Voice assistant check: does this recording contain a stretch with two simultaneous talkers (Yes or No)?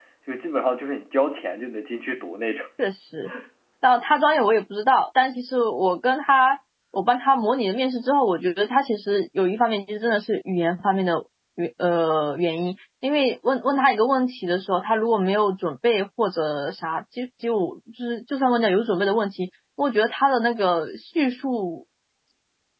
No